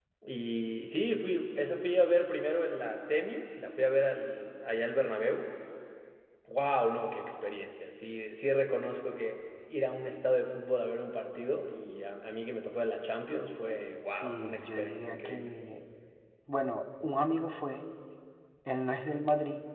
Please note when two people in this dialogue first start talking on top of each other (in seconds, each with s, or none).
14.1 s